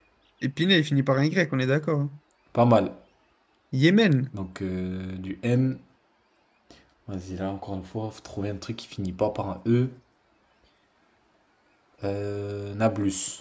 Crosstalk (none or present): none